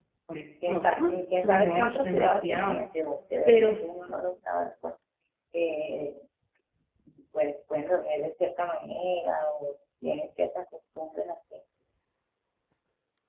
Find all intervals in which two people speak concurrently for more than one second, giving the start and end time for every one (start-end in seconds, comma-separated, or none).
0.7-2.8